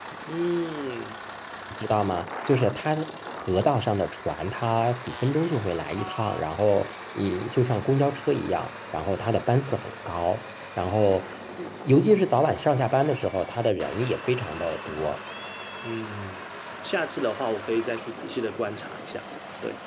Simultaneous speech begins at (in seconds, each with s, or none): none